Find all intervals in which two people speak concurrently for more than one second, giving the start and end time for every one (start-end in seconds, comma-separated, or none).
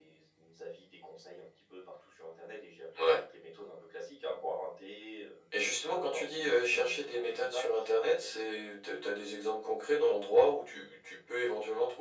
6.0-7.6